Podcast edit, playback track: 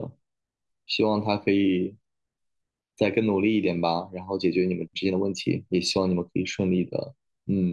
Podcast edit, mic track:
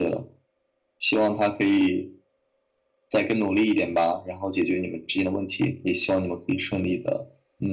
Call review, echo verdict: present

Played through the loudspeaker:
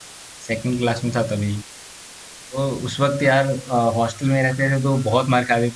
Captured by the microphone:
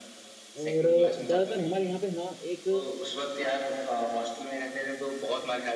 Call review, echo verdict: present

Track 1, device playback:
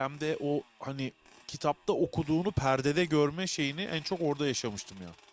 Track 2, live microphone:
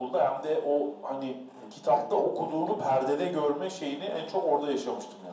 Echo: present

